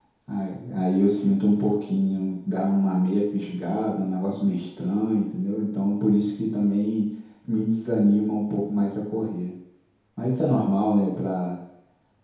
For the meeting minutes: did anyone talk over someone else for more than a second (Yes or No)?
No